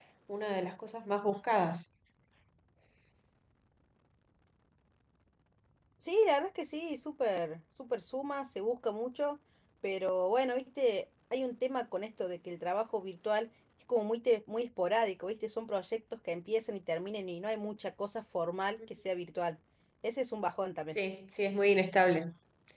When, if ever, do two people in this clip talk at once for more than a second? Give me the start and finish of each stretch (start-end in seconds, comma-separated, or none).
none